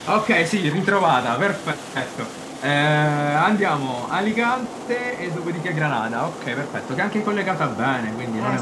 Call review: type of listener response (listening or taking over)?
taking over